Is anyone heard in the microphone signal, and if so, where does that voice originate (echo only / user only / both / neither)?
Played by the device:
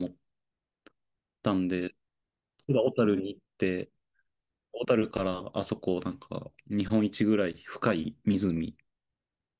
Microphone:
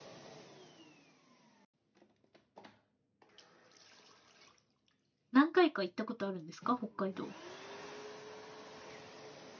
user only